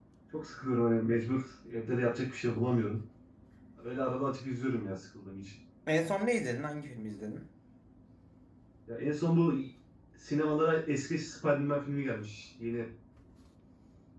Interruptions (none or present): none